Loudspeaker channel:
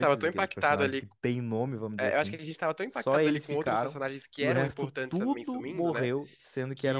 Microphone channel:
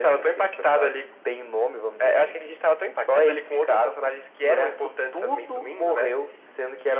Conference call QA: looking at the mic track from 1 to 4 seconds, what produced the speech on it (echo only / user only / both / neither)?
echo only